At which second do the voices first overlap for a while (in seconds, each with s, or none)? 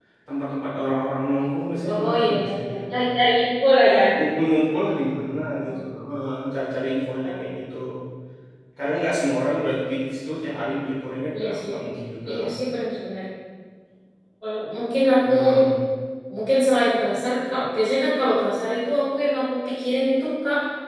1.9 s